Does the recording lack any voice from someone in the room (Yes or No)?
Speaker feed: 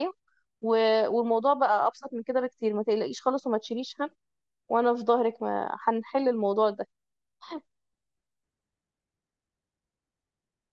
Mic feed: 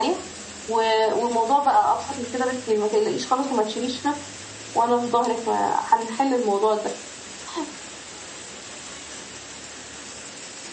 Yes